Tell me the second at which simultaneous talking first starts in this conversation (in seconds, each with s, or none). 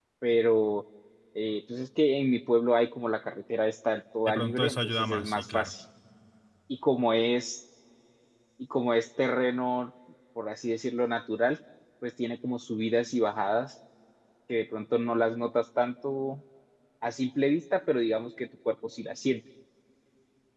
4.3 s